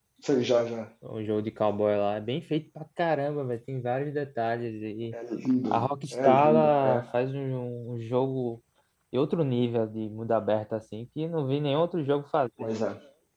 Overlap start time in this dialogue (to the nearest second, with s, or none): 6 s